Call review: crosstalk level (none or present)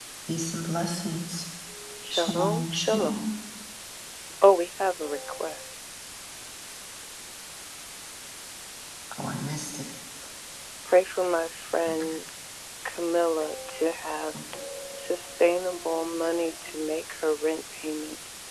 present